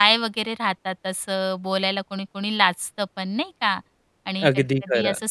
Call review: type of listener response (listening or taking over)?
listening